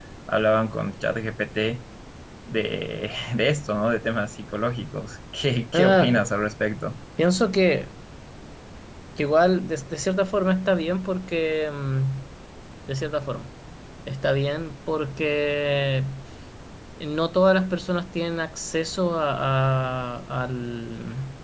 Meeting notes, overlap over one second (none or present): none